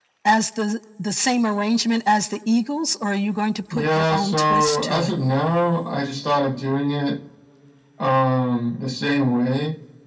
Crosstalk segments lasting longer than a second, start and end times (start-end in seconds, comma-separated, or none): 3.7-5.1